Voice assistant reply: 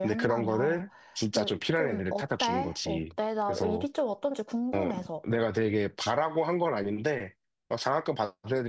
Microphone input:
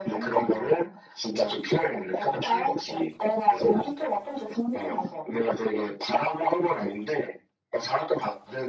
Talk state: echo only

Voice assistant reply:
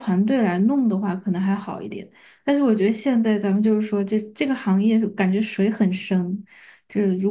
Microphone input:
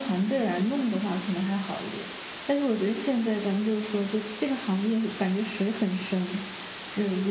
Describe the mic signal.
echo only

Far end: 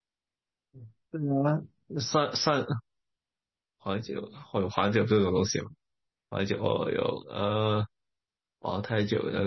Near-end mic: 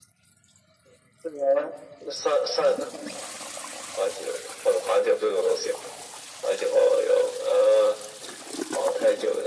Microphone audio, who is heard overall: echo only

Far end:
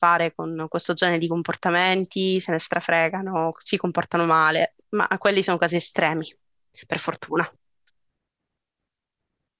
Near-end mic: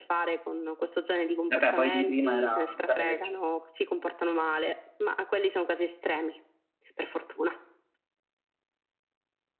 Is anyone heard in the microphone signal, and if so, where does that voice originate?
both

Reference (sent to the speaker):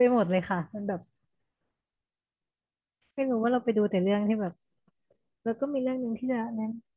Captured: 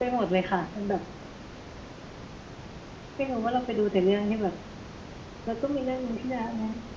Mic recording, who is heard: echo only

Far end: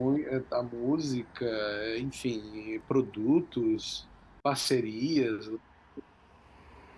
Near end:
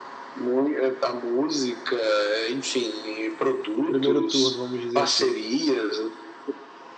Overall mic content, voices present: both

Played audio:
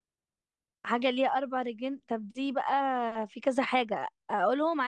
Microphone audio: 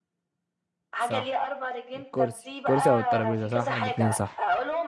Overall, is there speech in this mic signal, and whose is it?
both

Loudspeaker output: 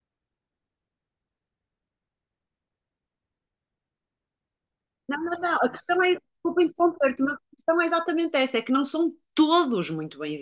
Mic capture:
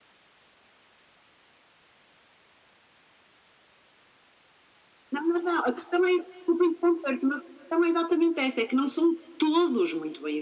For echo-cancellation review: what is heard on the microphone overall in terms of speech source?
echo only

